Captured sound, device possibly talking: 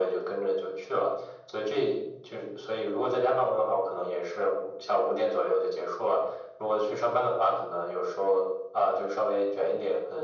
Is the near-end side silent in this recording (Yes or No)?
Yes